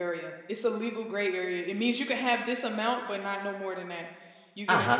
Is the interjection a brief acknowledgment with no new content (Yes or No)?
No